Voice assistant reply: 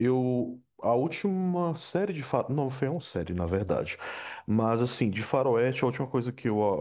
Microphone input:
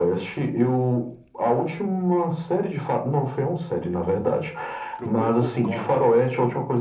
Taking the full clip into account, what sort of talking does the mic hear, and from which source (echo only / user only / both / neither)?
both